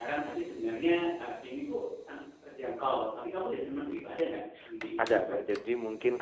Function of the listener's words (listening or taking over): taking over